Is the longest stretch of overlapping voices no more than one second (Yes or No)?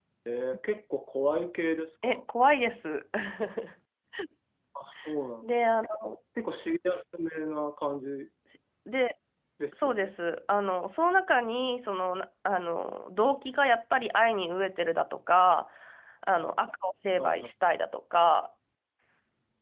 Yes